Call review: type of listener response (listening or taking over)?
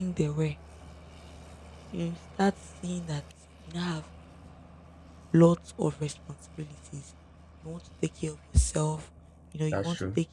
listening